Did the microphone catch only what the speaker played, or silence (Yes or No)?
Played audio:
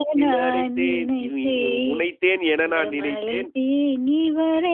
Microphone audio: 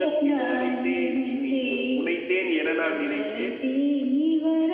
Yes